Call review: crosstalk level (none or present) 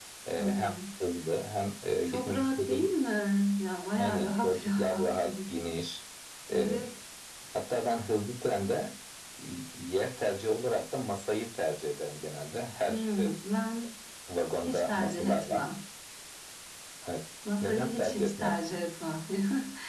present